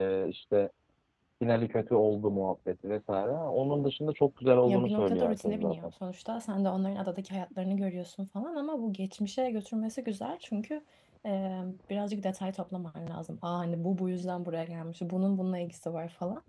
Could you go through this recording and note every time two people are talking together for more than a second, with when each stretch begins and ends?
4.7-5.9

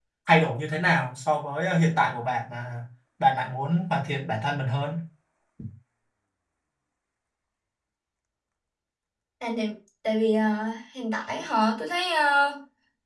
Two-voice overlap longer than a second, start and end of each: none

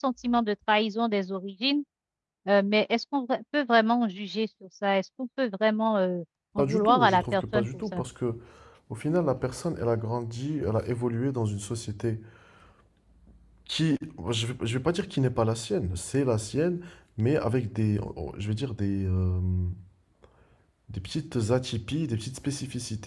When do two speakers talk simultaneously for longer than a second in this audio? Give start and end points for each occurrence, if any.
6.6-8.0

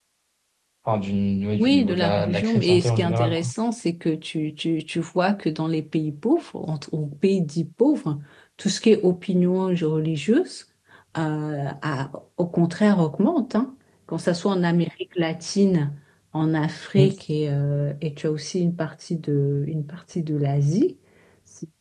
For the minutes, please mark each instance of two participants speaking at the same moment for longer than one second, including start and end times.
1.6-3.5

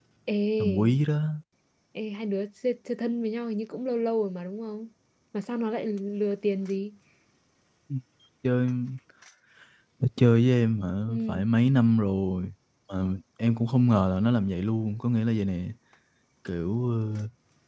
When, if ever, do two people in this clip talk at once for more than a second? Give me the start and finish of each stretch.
none

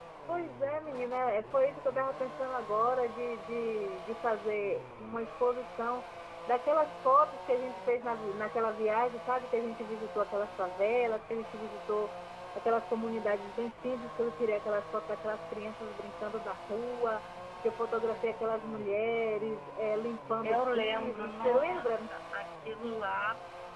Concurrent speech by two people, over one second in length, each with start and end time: 20.4-21.9

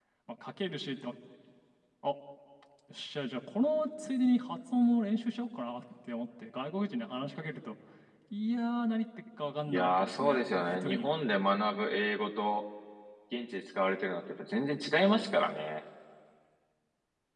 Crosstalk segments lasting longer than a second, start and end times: 9.7-11.1

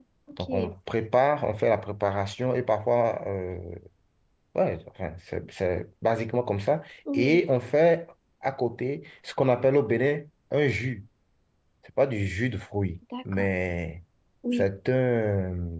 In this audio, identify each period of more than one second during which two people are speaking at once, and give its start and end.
none

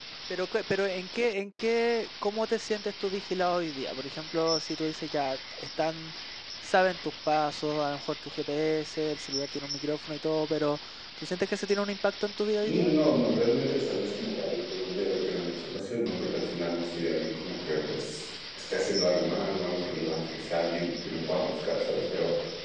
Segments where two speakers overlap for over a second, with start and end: none

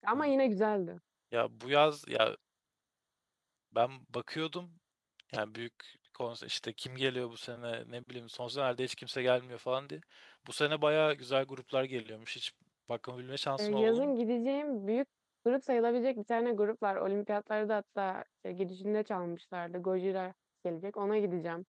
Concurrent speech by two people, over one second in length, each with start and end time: none

